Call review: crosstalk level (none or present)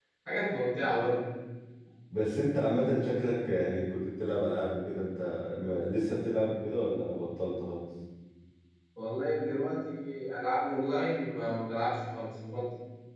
none